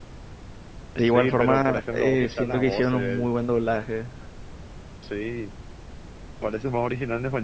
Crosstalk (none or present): present